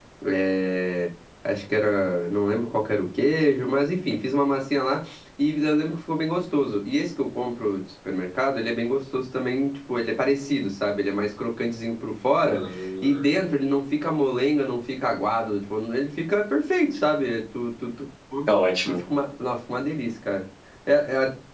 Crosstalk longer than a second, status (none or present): none